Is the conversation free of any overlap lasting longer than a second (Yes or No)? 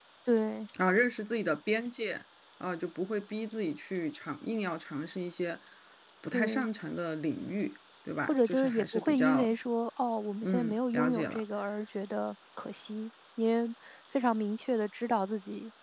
No